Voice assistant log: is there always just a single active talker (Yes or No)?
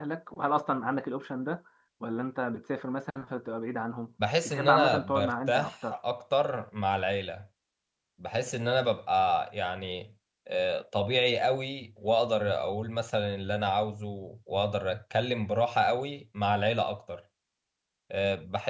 No